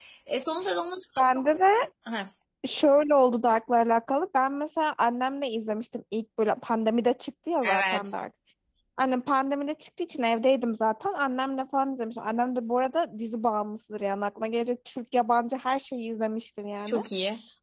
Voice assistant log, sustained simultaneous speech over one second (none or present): none